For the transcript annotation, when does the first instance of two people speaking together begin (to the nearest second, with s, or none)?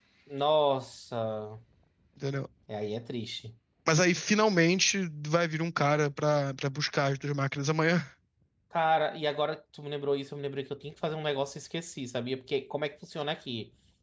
none